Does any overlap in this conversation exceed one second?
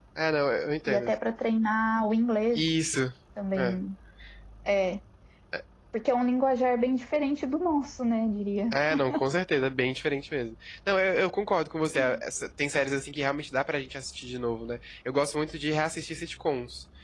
No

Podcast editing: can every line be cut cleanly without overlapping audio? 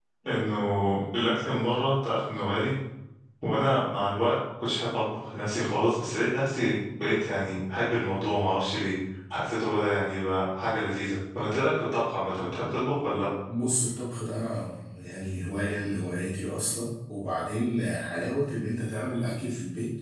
Yes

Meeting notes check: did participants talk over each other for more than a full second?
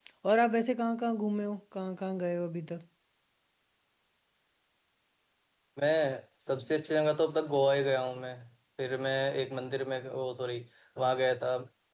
No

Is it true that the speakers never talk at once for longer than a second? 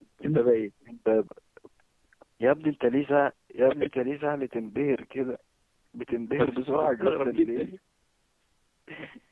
No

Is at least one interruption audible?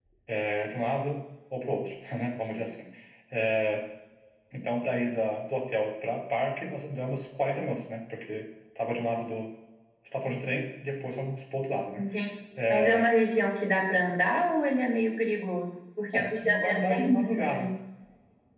Yes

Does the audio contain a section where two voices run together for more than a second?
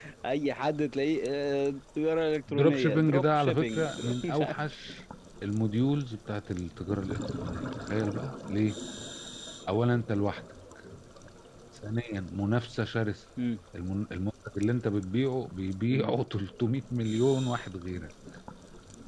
Yes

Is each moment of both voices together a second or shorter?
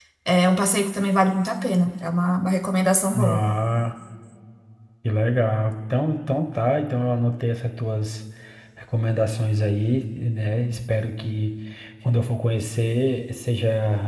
Yes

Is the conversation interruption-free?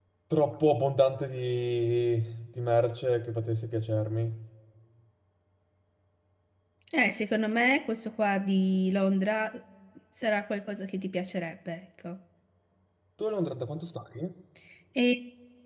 Yes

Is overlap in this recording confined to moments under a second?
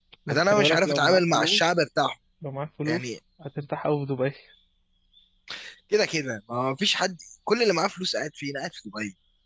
No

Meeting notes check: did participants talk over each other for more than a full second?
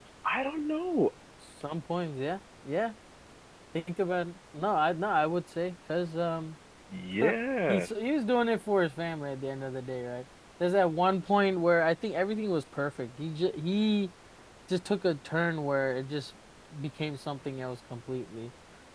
No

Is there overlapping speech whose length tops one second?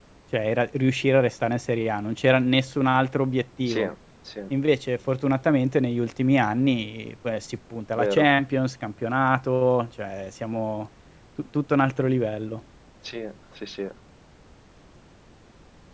No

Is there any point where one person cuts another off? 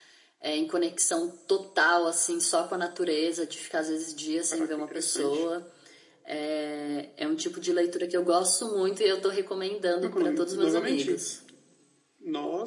Yes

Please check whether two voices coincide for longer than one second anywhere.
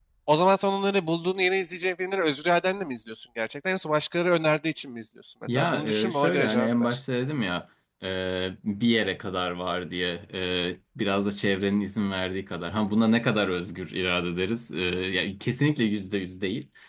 Yes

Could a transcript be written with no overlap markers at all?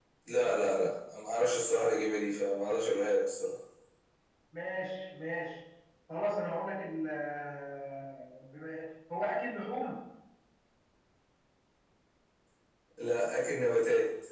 Yes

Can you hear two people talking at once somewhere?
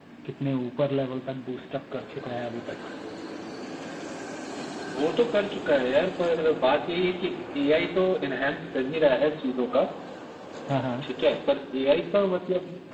No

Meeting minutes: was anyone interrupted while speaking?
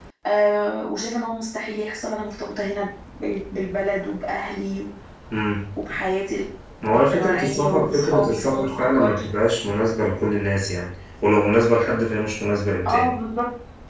Yes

